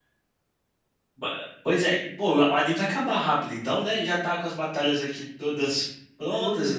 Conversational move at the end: taking over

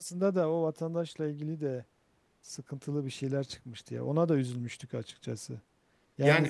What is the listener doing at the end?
listening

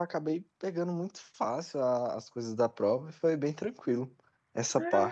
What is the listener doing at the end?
taking over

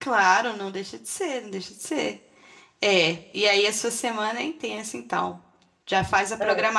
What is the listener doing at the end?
listening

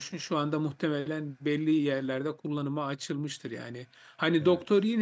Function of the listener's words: listening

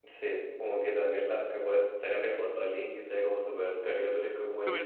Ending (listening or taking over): taking over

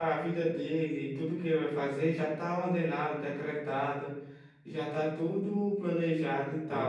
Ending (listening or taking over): listening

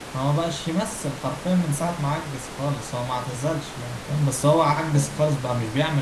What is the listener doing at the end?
listening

